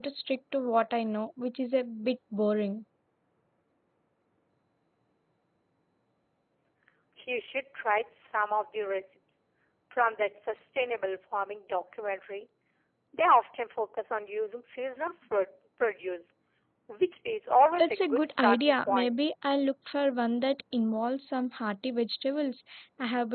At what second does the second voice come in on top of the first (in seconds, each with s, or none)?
17.8 s